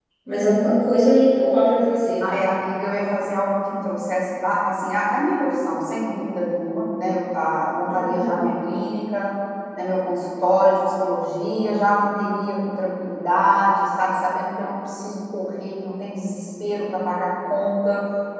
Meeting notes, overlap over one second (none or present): none